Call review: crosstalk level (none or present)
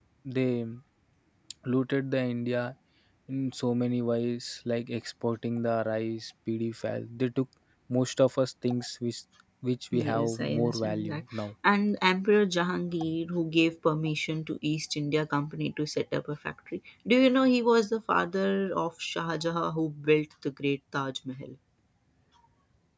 present